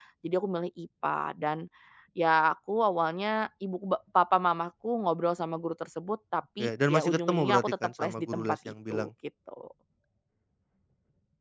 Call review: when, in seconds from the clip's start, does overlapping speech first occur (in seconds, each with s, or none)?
6.6 s